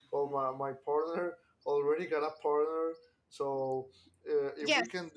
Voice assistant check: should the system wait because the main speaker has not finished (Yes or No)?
Yes